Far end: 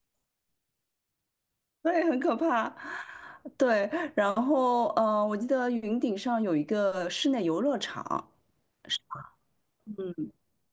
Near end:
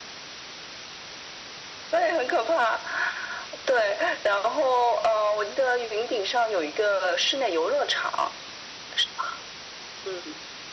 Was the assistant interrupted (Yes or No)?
No